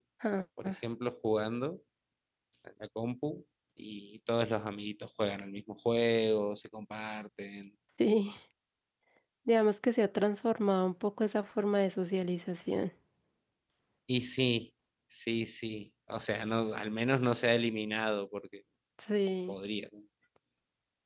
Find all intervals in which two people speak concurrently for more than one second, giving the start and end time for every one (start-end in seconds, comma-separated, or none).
none